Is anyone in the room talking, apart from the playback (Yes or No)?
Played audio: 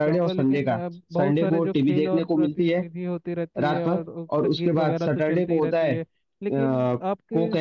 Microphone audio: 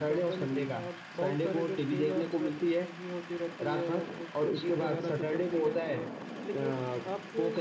No